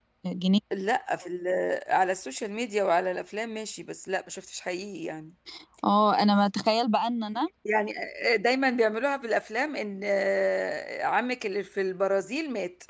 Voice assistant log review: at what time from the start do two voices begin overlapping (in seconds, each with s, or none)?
none